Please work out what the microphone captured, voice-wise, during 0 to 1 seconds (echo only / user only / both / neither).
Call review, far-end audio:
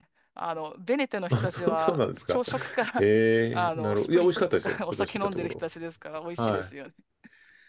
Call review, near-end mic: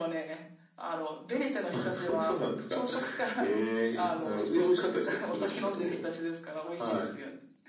echo only